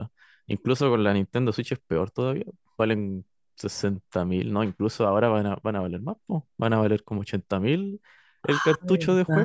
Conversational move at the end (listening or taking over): taking over